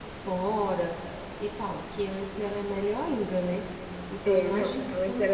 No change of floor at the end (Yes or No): No